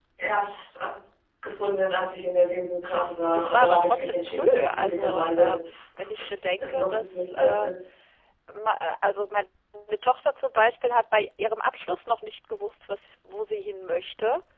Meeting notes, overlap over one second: present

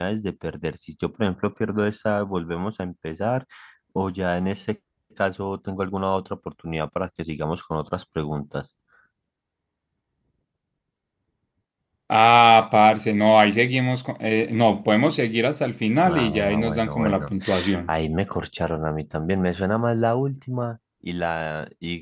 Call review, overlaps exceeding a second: present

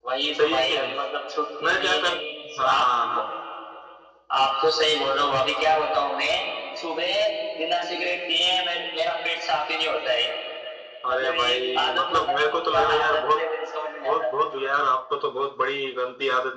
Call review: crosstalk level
present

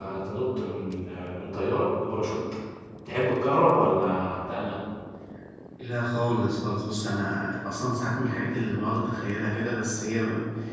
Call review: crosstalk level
none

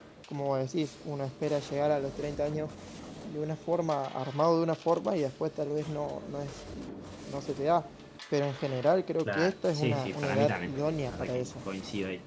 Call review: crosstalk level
present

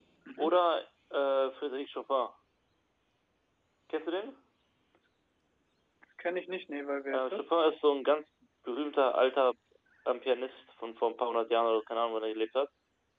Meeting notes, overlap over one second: none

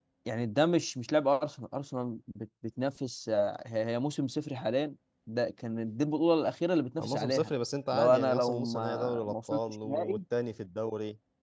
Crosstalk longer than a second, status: present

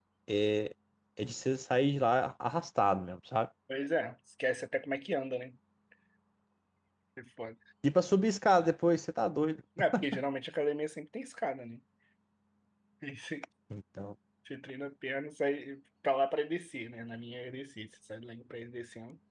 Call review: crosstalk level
none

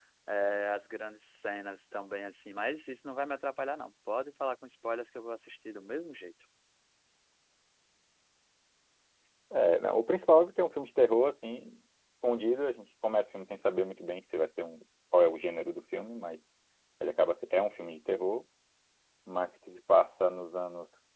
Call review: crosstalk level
none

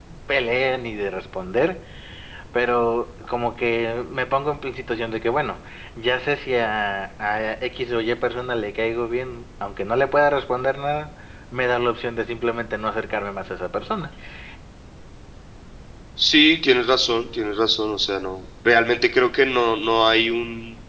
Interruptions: none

